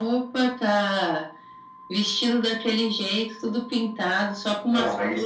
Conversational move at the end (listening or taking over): taking over